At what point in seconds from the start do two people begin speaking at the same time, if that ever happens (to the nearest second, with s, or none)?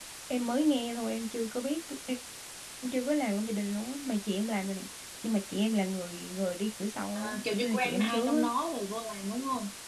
7 s